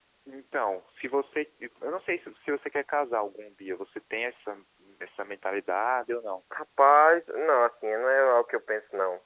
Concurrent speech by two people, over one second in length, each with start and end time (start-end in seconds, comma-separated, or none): none